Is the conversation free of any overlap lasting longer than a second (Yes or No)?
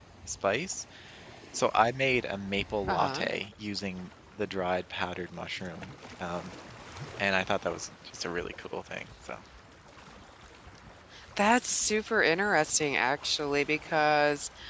Yes